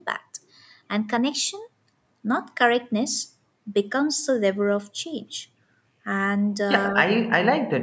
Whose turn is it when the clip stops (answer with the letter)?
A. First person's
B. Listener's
B